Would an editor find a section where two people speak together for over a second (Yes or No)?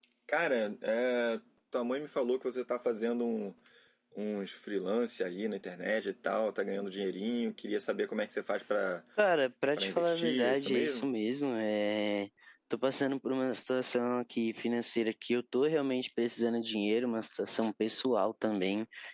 Yes